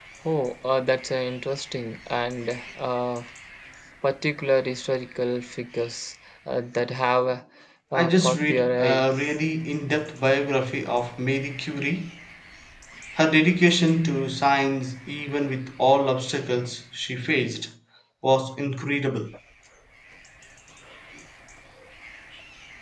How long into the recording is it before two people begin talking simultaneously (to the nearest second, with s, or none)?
8 s